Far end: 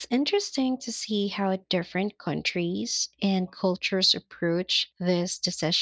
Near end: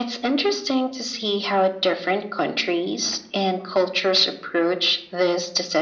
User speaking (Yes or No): No